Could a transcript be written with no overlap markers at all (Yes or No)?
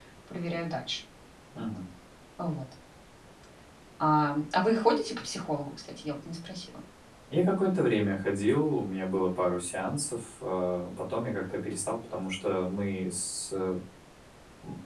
Yes